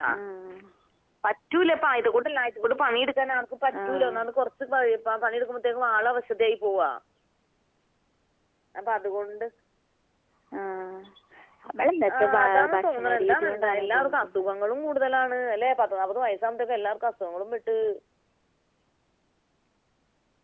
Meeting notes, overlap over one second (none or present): present